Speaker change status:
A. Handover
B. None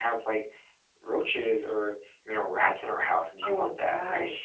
A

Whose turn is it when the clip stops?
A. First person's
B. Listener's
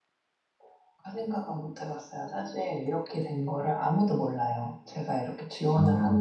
A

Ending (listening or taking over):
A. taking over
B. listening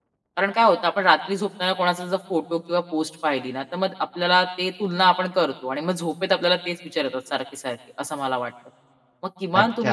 A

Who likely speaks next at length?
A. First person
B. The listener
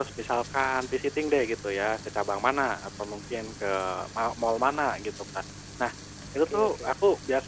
A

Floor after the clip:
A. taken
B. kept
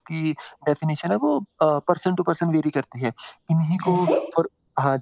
B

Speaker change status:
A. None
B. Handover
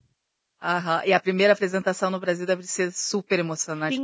B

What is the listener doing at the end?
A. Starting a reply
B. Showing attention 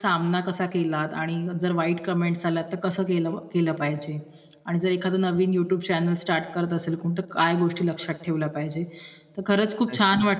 B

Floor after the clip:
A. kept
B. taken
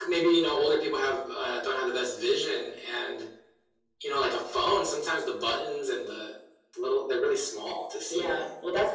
B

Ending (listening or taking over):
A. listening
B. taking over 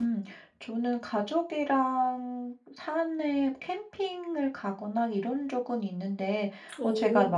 A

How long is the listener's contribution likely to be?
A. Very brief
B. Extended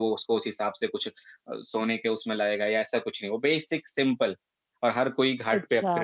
B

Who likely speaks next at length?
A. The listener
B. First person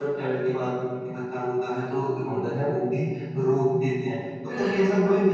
B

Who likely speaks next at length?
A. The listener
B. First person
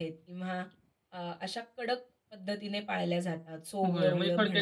A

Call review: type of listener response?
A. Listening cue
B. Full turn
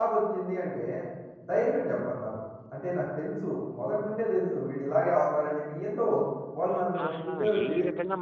B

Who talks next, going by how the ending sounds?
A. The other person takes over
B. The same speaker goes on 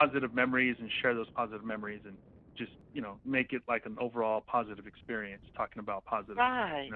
A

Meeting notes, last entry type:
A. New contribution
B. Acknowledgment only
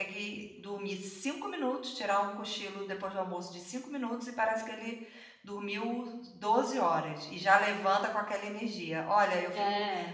B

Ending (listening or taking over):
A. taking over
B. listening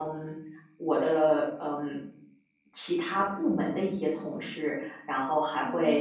B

